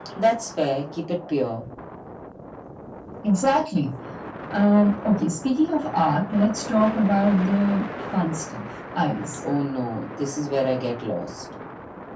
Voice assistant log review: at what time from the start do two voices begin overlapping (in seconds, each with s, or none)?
none